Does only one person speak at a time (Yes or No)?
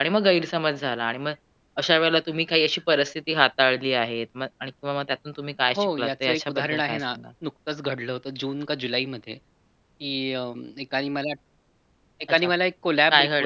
No